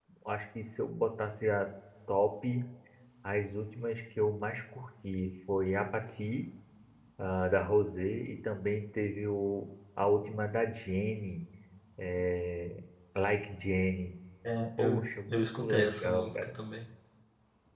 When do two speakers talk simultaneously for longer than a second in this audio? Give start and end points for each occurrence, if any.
14.8-16.4

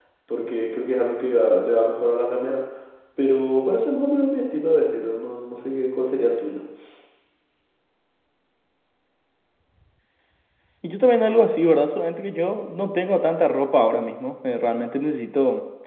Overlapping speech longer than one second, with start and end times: none

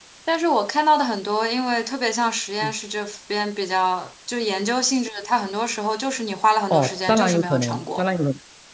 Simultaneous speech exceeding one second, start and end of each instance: 6.7-8.0

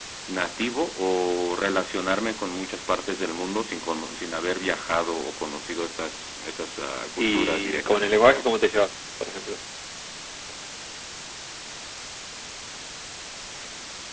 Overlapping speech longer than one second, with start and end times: 7.2-8.5

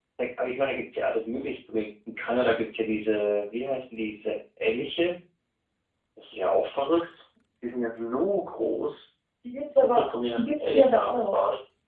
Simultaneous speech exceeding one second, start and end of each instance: 9.7-11.4

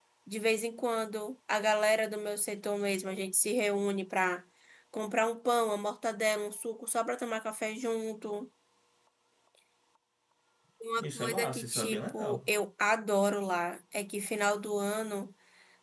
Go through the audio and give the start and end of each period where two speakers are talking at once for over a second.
11.0-12.5

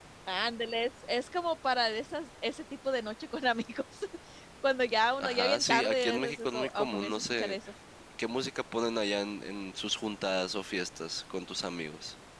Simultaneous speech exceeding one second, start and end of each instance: 5.2-7.5

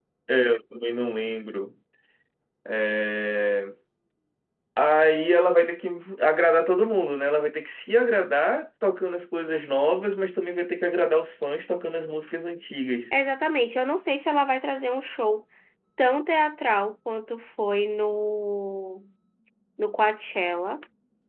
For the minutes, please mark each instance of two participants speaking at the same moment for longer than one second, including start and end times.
none

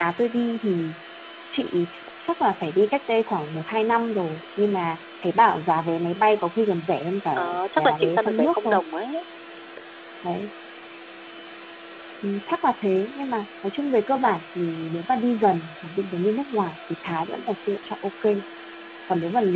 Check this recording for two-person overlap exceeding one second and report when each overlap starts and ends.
7.4-8.7

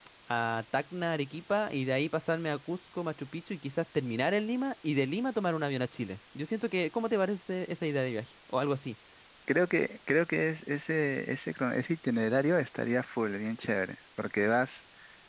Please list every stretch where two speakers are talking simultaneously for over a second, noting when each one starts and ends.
none

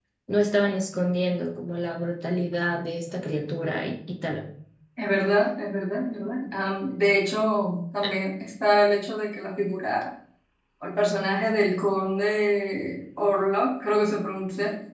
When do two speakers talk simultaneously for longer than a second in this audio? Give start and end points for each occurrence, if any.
none

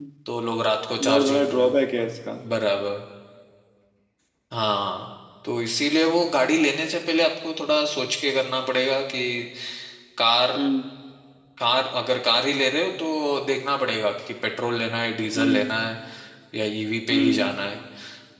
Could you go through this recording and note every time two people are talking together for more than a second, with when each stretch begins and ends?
1.0-2.4

